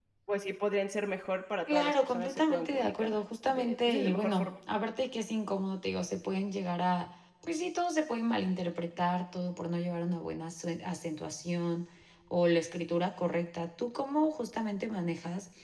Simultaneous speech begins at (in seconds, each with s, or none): 1.7 s